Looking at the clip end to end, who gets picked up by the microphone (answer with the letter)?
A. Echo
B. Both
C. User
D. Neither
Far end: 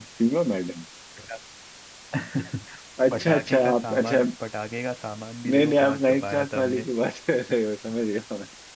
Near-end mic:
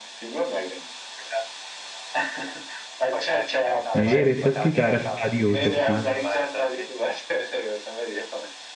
B